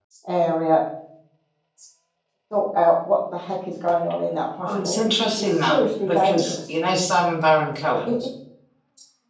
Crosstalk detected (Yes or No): Yes